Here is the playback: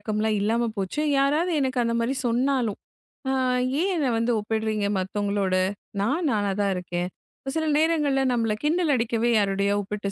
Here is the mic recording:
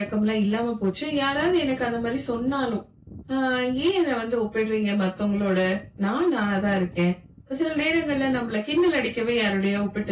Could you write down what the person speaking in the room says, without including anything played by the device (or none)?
none